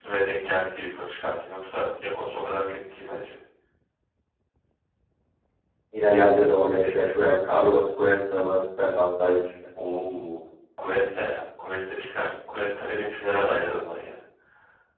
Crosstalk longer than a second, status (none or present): none